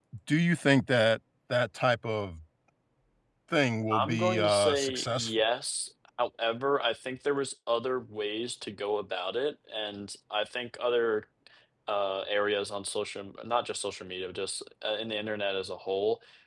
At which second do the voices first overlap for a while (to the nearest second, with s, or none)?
4 s